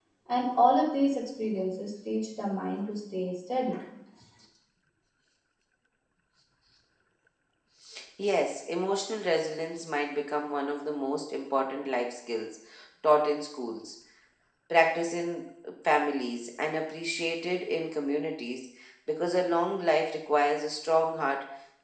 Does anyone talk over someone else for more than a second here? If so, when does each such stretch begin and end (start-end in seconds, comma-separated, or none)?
none